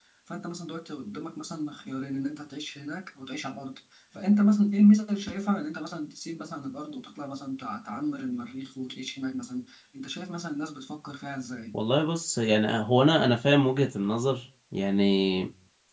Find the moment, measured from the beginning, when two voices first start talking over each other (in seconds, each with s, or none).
none